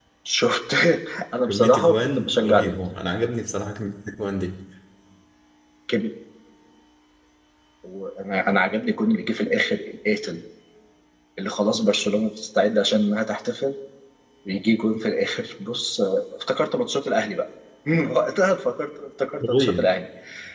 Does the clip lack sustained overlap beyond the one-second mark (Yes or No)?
No